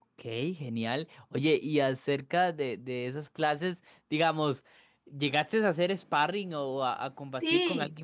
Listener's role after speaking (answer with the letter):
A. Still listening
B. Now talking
B